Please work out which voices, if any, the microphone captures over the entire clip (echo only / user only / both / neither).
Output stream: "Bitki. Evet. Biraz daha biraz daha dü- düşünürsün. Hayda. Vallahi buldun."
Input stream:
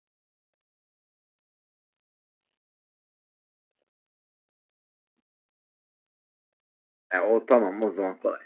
user only